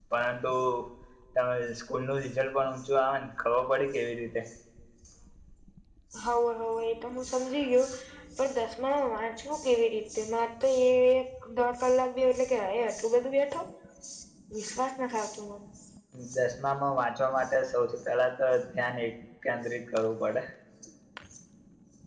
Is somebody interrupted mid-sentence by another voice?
No

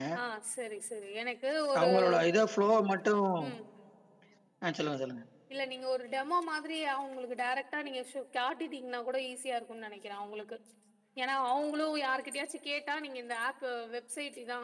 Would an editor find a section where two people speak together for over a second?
No

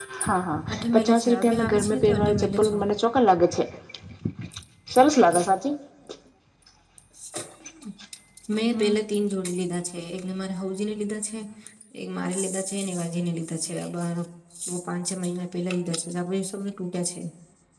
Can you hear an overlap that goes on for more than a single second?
Yes, from 0.7 s

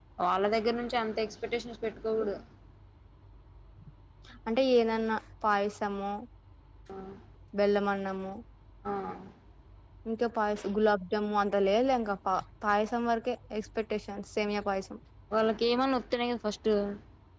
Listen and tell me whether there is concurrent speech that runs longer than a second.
No

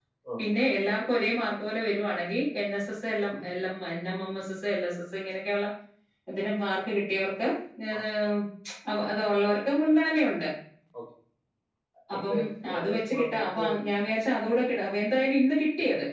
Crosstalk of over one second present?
Yes, from 12.3 s

